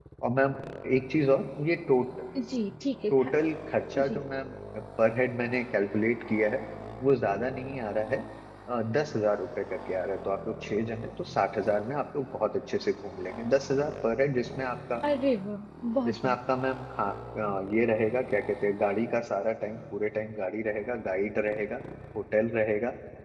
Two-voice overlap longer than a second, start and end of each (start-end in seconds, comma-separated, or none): none